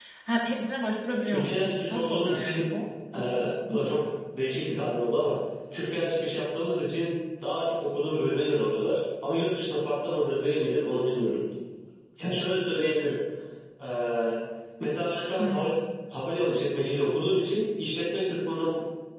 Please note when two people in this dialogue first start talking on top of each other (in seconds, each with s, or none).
1.1 s